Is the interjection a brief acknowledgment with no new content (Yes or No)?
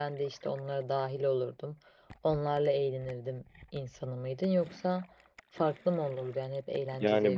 No